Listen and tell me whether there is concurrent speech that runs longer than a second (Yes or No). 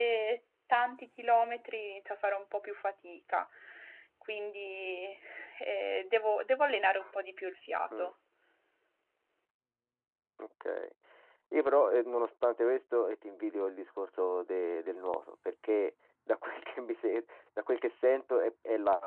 No